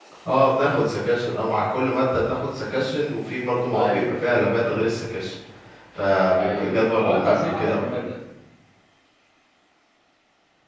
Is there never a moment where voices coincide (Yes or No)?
No